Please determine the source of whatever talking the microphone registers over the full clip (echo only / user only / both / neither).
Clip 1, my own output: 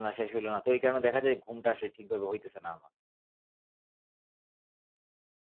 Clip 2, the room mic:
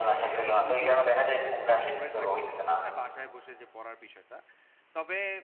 both